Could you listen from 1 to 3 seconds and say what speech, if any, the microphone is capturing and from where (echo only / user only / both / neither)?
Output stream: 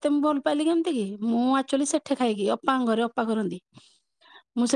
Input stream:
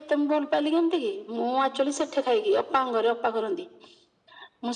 echo only